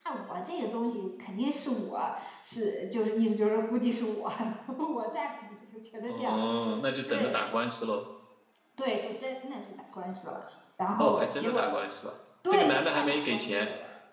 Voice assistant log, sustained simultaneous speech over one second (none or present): present